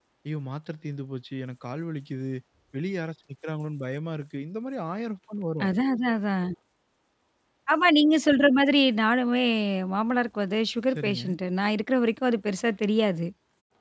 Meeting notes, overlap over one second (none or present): none